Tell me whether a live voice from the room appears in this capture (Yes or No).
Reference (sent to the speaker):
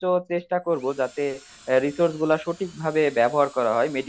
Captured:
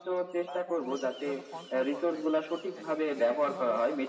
Yes